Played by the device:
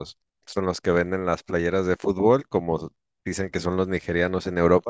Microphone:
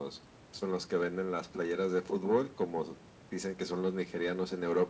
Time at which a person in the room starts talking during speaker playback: none

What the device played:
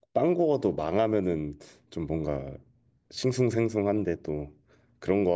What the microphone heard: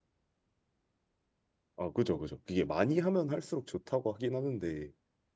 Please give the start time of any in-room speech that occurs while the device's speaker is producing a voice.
1.8 s

